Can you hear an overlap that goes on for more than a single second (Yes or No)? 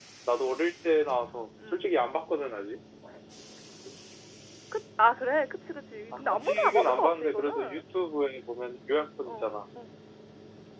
Yes